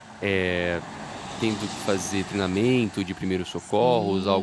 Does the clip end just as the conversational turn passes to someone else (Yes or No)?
Yes